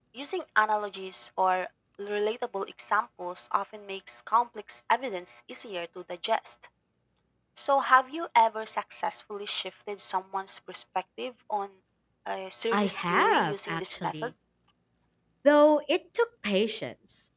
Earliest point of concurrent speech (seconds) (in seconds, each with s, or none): 12.7 s